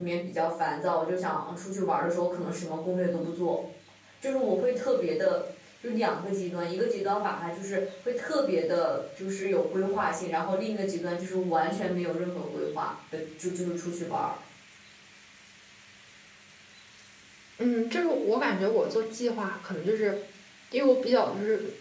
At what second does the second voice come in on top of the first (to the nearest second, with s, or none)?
none